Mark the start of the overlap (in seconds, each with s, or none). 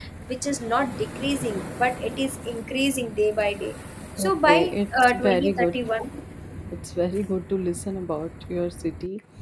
4.2 s